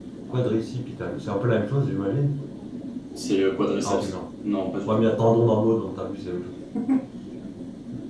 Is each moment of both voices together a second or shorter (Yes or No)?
Yes